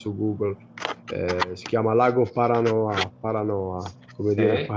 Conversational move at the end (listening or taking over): listening